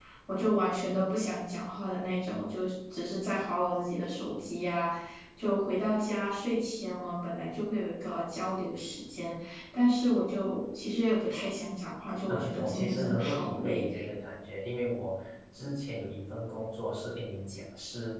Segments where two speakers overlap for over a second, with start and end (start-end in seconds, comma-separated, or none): 12.3-13.9